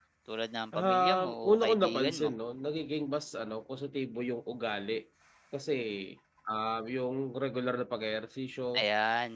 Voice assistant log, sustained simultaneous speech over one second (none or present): present